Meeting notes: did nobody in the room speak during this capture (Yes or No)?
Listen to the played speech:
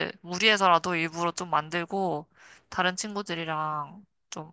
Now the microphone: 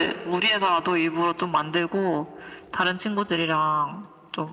Yes